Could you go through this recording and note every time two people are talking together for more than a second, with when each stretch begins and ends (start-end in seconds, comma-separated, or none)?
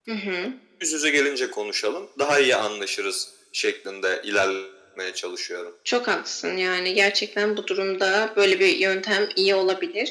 none